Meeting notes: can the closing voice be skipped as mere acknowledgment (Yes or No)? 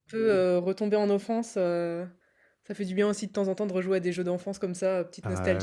No